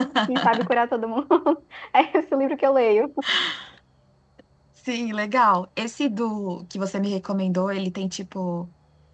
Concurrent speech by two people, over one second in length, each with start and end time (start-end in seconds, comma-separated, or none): none